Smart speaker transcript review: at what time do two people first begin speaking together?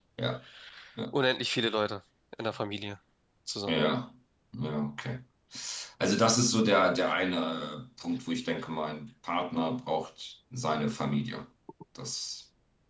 none

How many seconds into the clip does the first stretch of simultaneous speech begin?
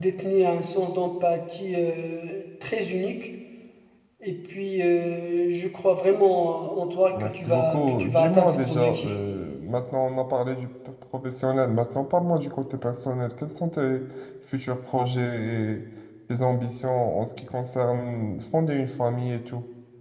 7.1 s

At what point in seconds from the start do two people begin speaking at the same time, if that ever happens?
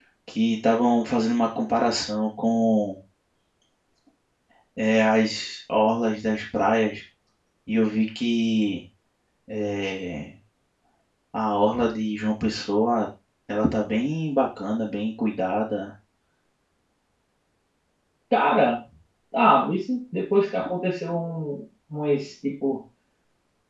none

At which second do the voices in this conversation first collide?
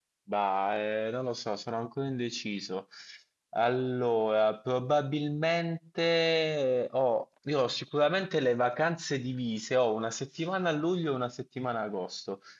none

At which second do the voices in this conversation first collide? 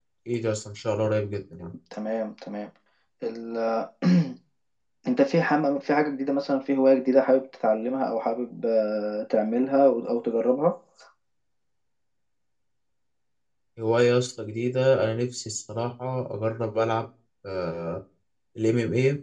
none

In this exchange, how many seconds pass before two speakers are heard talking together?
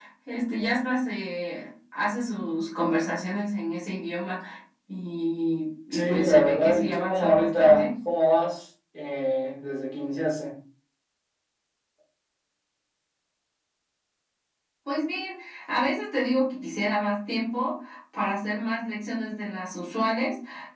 5.9 s

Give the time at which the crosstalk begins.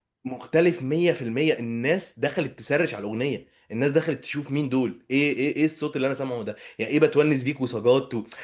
none

